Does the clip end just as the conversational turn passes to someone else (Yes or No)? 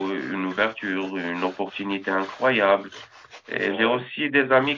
No